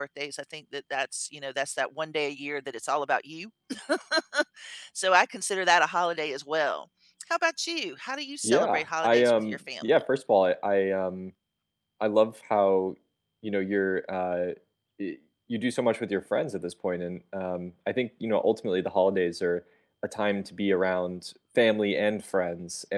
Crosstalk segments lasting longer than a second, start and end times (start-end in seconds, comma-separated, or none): 8.4-10.0